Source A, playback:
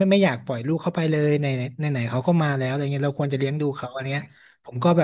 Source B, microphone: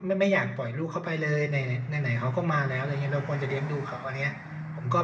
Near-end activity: none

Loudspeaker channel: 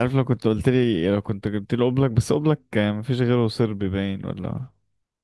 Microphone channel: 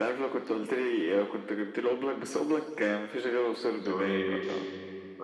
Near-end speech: present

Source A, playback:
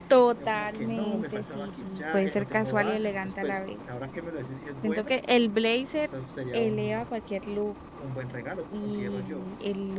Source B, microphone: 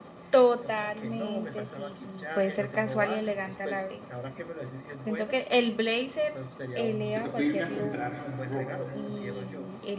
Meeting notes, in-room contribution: present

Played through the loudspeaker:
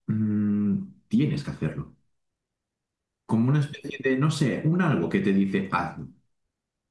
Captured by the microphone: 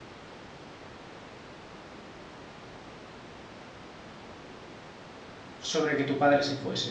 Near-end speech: present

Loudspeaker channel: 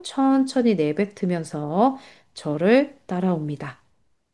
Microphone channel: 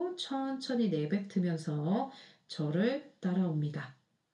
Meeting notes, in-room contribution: none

